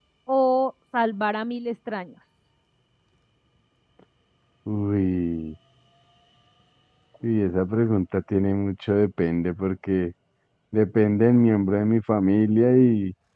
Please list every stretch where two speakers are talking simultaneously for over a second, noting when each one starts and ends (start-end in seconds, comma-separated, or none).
none